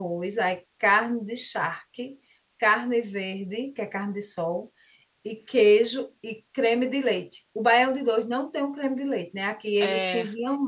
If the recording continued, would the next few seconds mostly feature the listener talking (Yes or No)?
No